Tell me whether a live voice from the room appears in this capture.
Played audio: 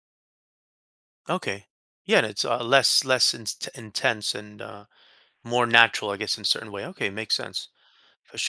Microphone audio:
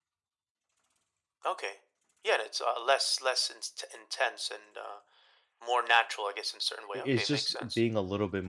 Yes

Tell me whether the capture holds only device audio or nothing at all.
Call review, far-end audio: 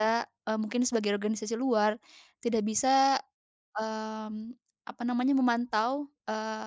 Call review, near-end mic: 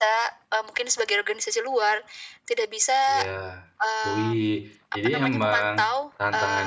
No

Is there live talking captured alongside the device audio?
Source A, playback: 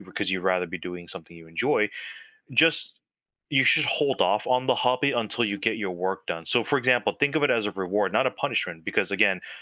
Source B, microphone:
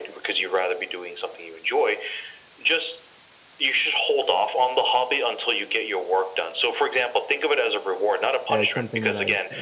Yes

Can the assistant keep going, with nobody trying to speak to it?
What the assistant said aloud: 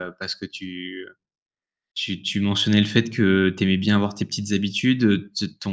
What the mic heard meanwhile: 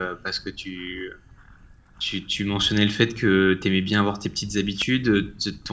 Yes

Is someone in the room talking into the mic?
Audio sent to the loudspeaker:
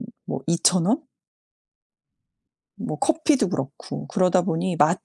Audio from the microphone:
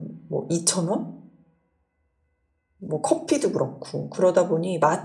No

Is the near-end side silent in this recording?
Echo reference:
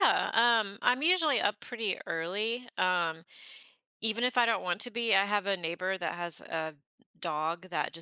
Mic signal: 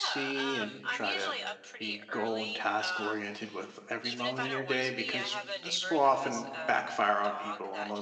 No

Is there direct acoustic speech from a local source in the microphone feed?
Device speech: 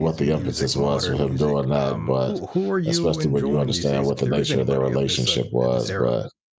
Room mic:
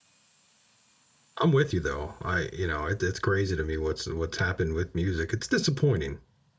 Yes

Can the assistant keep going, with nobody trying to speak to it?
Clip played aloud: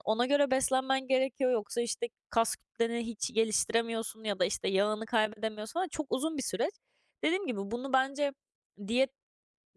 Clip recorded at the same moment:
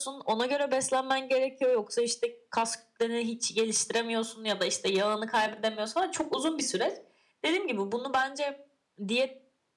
Yes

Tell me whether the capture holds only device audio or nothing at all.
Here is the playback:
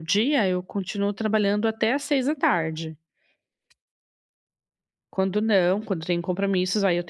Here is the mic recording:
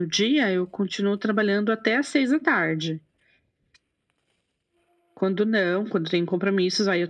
Yes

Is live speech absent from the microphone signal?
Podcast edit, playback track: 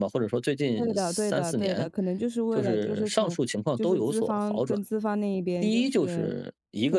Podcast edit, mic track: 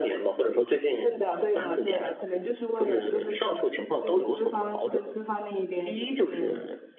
Yes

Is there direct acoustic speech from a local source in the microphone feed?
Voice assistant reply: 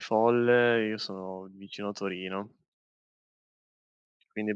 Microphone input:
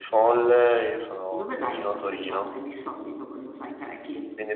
Yes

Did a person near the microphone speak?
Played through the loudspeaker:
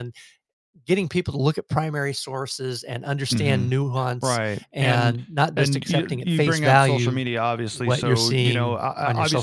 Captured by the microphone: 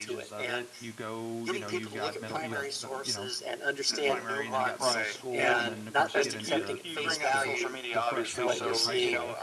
Yes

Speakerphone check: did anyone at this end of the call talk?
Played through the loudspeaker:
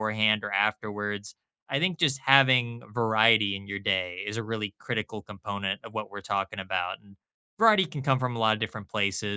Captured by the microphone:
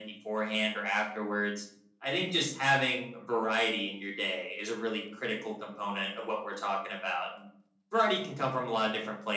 No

